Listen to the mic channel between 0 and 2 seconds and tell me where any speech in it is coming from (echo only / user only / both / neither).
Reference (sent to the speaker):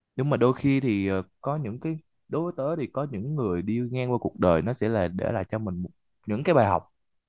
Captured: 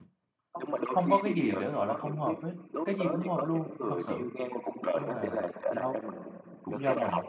both